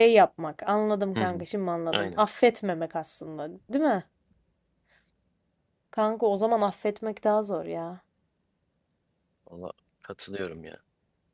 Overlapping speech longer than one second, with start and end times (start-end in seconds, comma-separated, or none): none